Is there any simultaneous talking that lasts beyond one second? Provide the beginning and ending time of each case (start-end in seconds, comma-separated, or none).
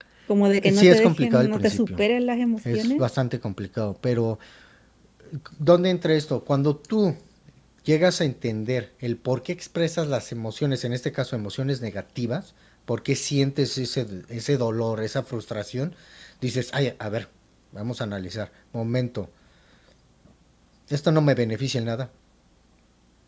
0.7-2.0